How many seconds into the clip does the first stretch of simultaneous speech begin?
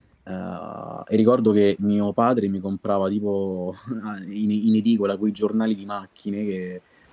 none

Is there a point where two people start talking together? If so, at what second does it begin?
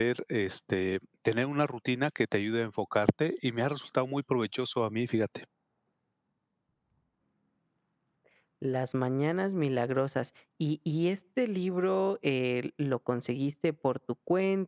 none

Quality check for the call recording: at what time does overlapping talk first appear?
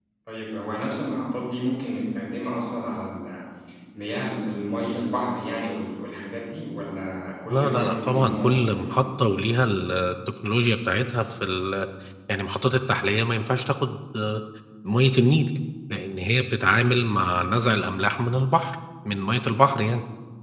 7.5 s

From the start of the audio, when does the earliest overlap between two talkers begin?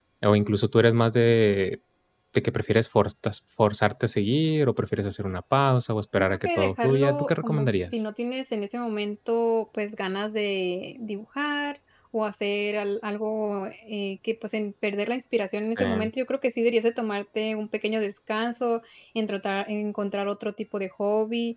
6.2 s

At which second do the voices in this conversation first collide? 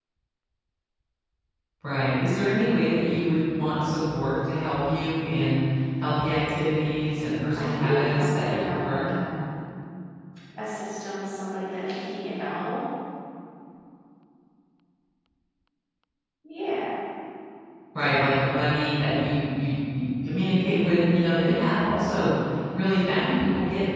7.6 s

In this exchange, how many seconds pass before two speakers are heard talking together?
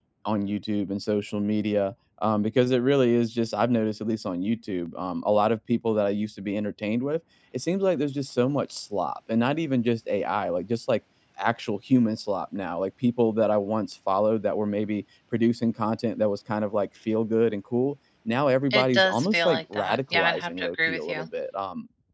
18.7 s

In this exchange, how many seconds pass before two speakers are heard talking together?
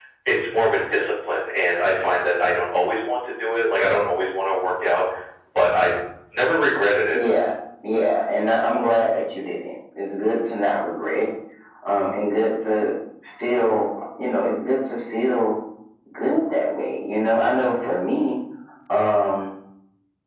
none

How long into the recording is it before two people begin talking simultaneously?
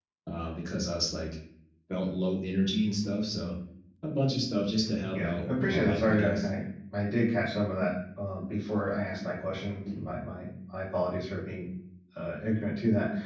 5.1 s

